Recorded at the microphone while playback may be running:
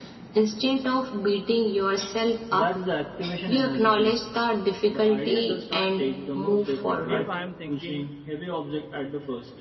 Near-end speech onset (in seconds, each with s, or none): 7.1 s